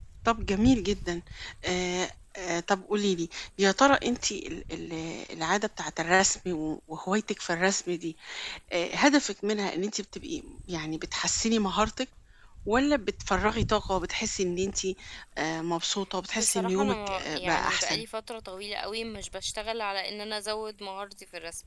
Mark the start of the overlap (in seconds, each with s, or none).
16.3 s